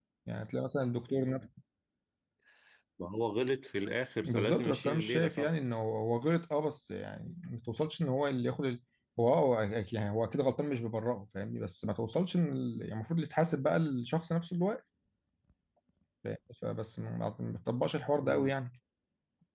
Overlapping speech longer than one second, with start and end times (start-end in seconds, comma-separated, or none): 4.2-5.5